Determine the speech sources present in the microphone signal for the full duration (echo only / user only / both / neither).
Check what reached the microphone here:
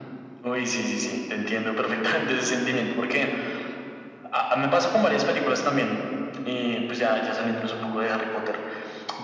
echo only